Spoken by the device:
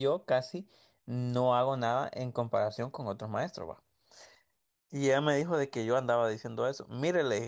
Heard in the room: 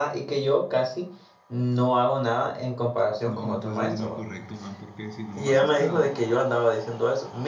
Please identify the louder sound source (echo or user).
echo